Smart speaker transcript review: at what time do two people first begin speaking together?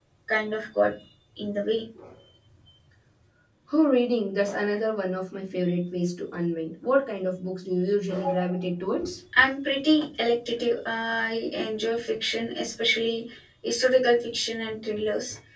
none

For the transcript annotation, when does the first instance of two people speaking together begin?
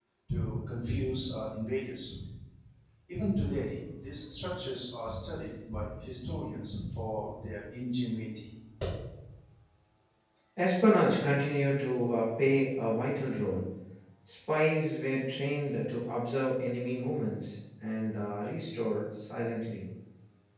none

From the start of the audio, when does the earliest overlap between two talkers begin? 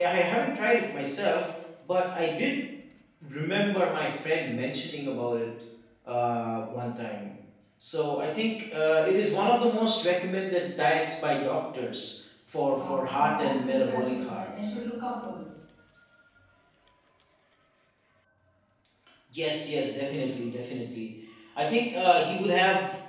12.7 s

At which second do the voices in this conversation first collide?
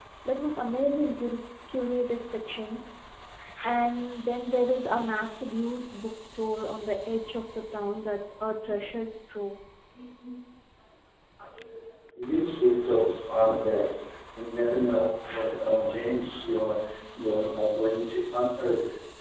none

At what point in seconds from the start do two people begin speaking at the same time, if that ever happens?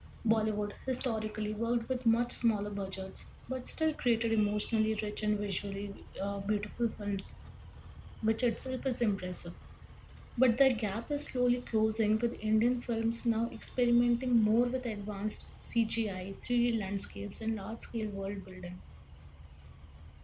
none

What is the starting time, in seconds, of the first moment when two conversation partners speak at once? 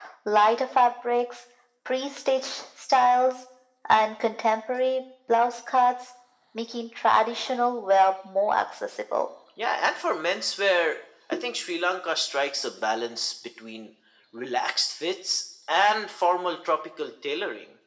none

